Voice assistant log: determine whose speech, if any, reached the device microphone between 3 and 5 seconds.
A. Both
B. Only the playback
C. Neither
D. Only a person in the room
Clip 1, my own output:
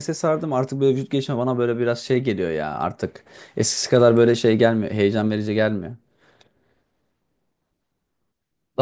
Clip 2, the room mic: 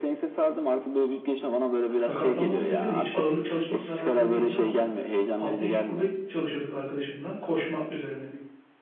A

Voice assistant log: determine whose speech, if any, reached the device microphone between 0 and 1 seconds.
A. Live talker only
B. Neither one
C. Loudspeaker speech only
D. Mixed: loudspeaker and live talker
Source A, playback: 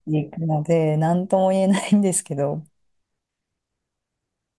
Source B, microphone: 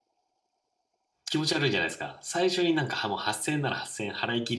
B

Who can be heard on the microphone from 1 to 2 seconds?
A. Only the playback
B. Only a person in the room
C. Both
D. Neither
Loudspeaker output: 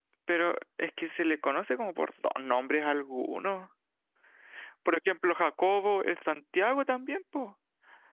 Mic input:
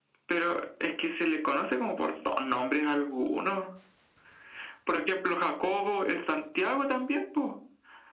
A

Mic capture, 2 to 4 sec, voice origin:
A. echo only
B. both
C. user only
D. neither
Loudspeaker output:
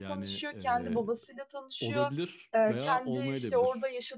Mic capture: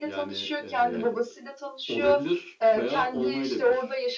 A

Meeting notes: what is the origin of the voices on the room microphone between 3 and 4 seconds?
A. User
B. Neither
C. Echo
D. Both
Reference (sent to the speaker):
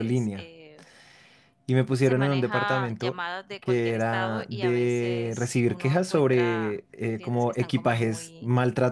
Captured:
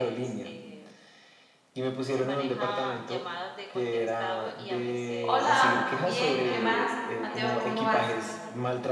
C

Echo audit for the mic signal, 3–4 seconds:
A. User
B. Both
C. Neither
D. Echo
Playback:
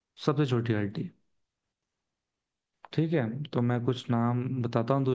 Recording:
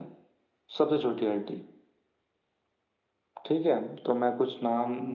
D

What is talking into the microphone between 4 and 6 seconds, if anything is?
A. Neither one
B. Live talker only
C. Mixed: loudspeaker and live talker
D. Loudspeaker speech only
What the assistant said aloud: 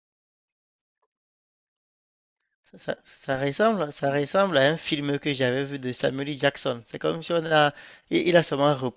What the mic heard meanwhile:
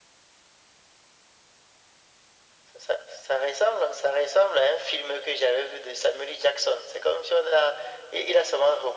D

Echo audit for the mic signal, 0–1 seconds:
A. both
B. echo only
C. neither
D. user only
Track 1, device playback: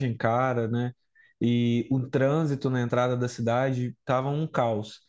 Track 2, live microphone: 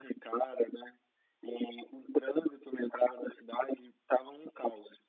B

